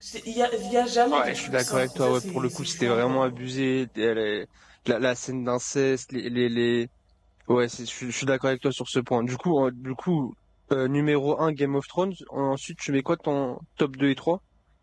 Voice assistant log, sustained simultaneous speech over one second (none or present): present